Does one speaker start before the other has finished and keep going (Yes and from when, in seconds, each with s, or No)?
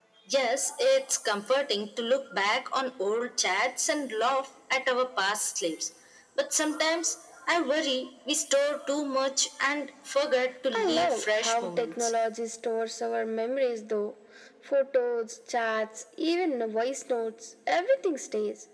Yes, from 10.7 s